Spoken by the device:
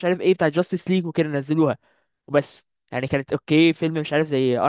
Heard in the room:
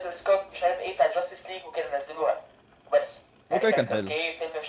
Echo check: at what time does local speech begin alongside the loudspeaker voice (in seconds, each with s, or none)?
3.5 s